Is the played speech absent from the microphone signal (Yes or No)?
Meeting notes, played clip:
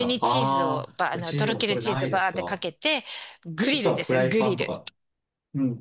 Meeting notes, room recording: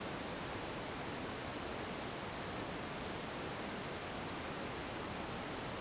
Yes